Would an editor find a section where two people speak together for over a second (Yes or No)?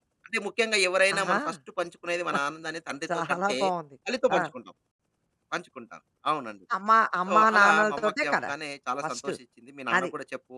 Yes